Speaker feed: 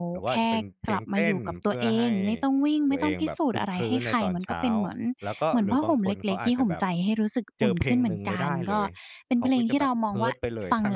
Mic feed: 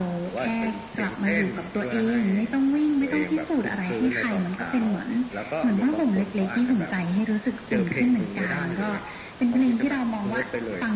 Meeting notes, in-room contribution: none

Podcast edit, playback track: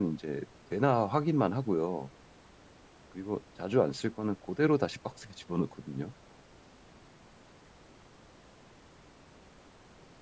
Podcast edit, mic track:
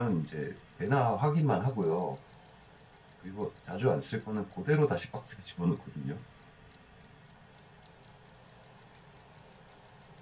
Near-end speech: none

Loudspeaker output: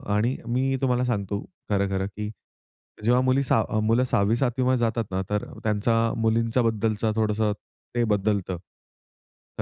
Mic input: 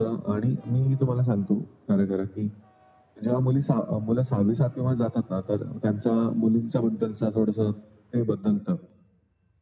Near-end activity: none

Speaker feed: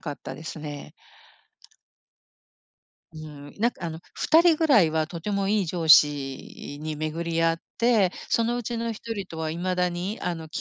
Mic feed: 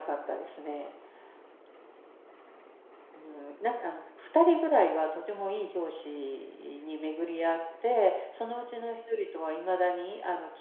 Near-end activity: none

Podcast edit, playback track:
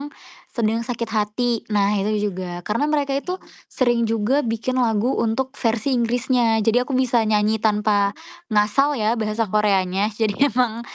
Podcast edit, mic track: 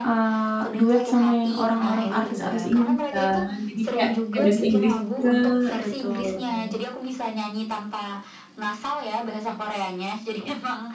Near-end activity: present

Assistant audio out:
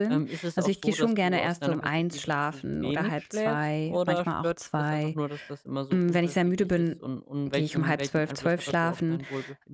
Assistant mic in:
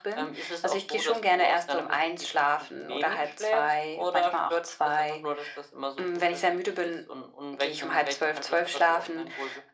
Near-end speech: none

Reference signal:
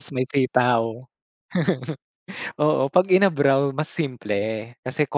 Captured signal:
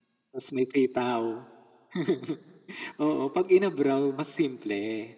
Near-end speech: none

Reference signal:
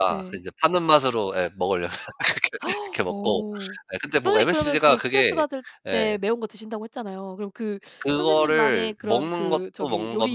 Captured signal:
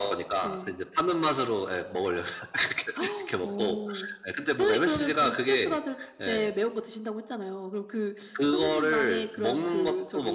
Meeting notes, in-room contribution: none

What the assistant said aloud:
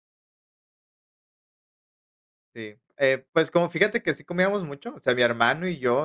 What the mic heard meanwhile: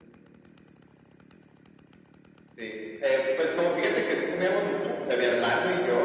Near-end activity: none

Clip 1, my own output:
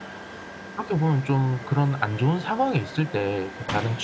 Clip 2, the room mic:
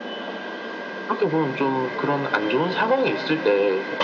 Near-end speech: none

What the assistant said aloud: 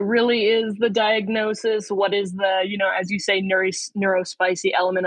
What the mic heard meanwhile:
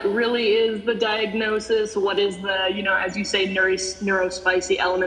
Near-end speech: none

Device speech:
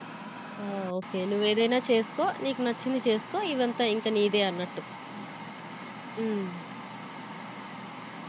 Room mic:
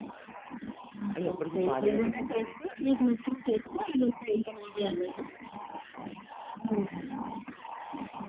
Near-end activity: present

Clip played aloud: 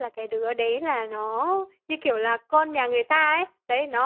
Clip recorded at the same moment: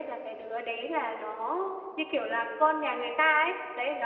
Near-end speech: none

